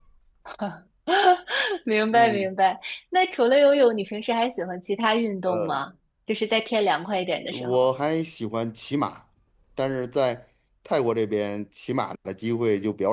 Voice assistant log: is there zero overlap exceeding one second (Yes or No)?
Yes